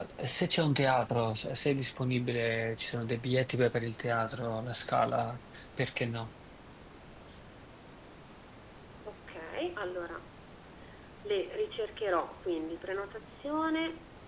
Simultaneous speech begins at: none

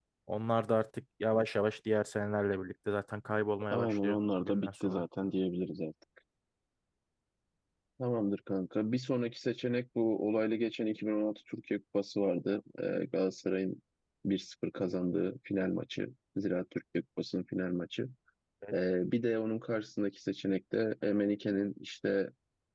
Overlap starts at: 3.7 s

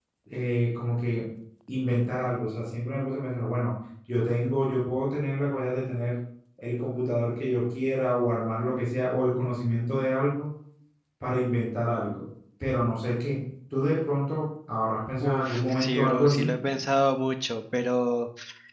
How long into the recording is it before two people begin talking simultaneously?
15.2 s

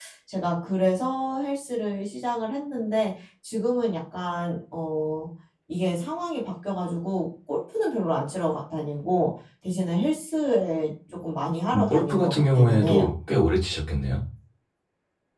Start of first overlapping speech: 11.7 s

